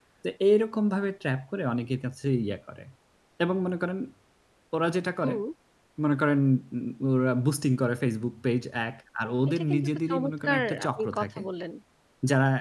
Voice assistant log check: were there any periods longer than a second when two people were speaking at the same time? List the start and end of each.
9.5-11.4

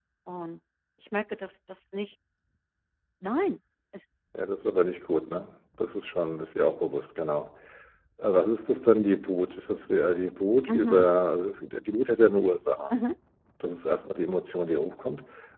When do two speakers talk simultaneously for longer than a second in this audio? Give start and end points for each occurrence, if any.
none

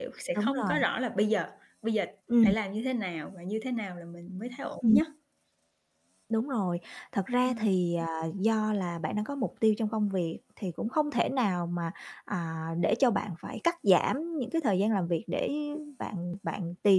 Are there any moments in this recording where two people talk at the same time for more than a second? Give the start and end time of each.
none

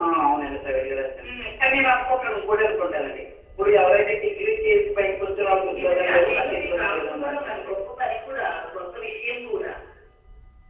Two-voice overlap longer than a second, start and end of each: 5.4-7.8

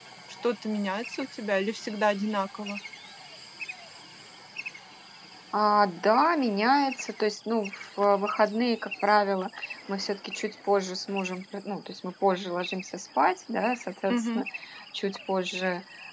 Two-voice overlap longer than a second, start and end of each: none

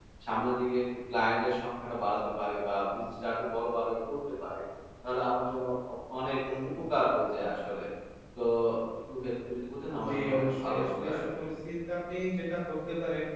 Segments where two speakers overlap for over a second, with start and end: 10.1-11.4

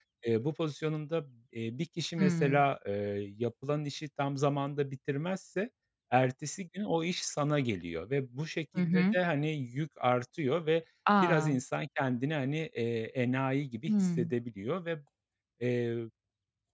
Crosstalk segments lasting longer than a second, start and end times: none

